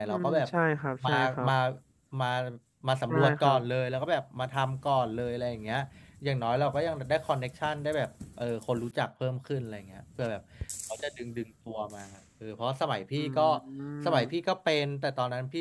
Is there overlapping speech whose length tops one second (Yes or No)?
No